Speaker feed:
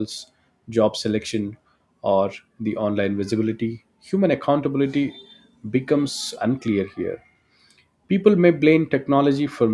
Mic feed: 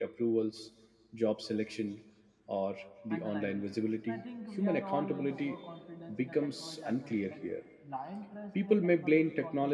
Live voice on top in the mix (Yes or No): No